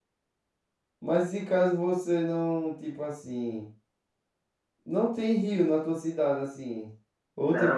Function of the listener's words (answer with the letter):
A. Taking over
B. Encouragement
A